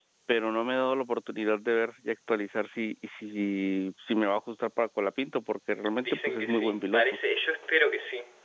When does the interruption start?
6 s

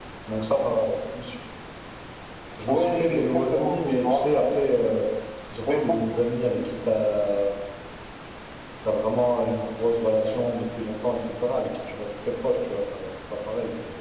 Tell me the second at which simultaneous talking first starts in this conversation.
3 s

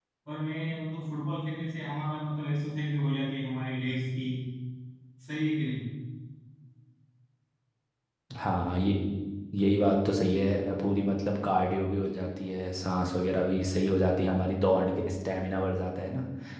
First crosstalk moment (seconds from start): none

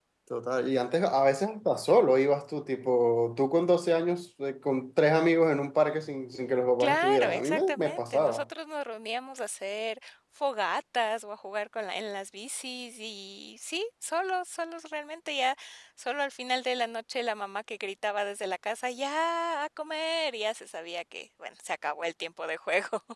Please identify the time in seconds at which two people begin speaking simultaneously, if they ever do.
7 s

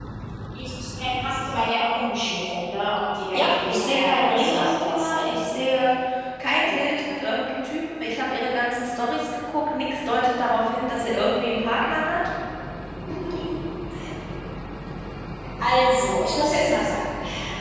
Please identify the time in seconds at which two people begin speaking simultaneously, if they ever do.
3 s

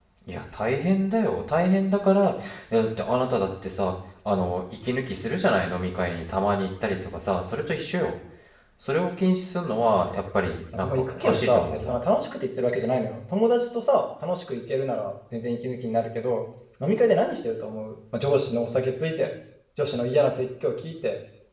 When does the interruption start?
11 s

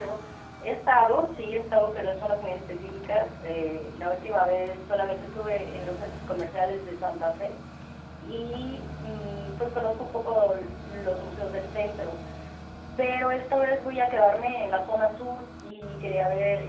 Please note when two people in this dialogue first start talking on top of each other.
none

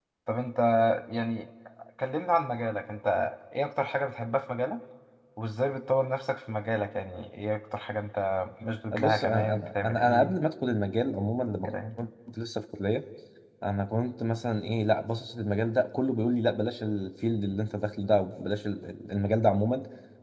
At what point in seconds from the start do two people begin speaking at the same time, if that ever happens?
9 s

